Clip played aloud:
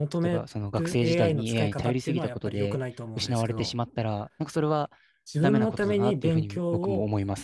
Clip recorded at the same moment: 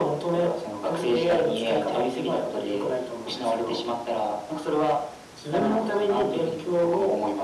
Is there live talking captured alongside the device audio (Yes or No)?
No